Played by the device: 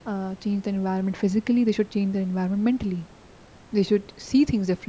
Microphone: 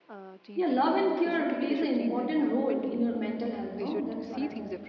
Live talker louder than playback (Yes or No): Yes